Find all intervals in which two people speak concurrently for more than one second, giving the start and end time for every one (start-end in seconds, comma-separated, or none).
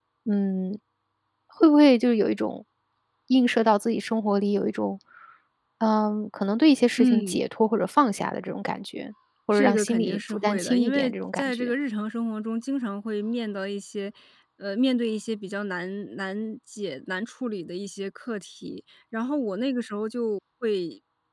9.5-11.7